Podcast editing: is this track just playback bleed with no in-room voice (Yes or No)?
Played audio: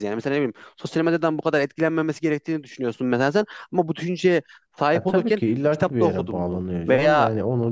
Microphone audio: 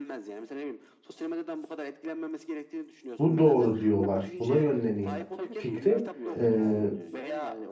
No